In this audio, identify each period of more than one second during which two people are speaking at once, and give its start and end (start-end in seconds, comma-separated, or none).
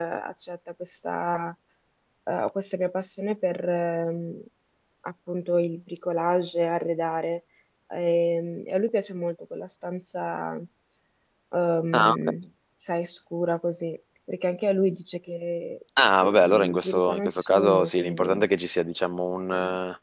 16.2-18.5